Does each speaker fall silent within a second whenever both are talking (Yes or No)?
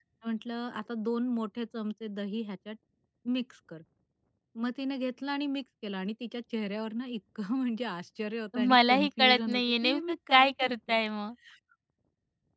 No